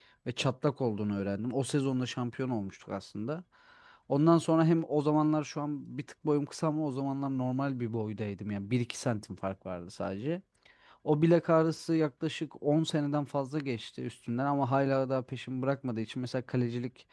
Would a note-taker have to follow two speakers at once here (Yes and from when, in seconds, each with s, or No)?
No